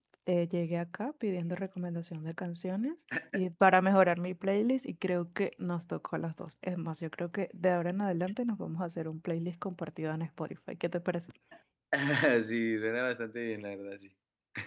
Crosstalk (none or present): none